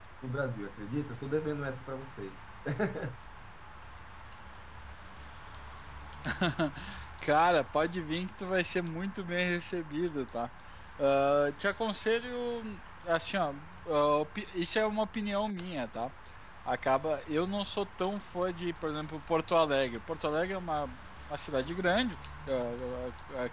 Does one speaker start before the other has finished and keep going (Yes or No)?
No